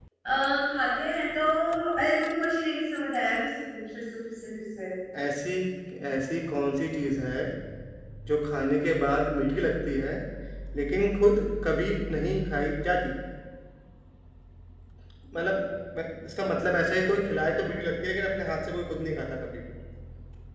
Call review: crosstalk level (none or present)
none